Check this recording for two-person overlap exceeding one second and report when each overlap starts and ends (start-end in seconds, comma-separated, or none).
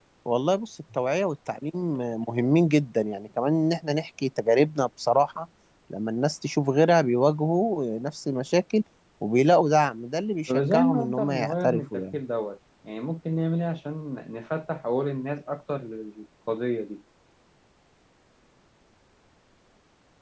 10.5-12.2